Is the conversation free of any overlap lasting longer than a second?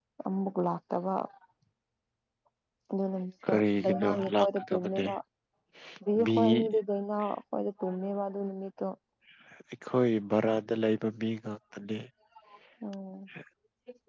No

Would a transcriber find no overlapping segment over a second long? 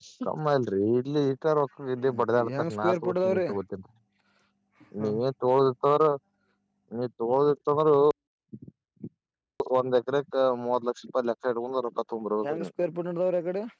No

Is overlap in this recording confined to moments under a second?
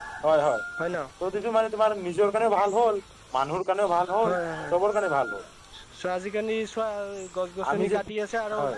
Yes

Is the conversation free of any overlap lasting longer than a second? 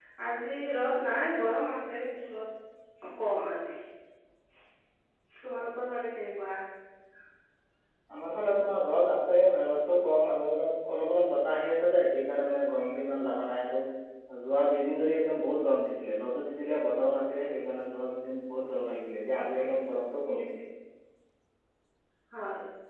Yes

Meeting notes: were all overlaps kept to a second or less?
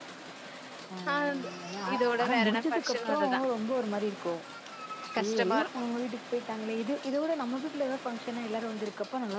No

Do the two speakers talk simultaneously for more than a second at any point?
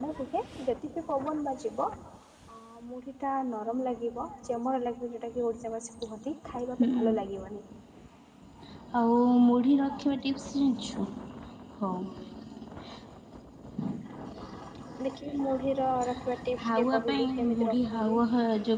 Yes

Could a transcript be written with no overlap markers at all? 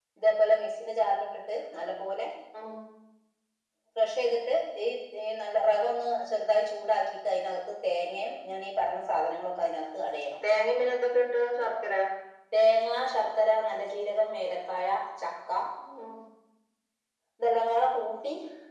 Yes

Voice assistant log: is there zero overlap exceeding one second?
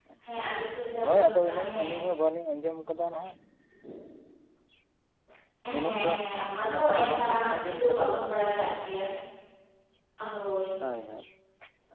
No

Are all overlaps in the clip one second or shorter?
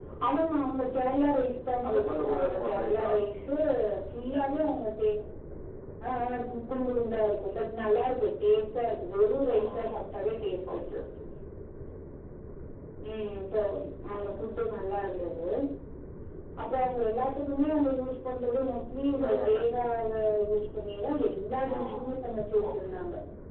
No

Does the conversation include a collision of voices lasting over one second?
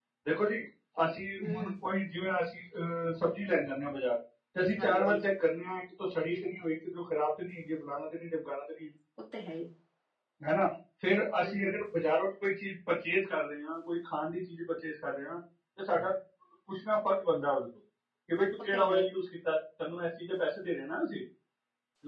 No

